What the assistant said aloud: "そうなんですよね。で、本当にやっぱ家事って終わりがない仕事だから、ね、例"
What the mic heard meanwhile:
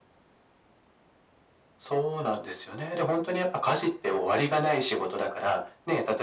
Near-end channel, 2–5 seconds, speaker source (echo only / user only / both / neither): echo only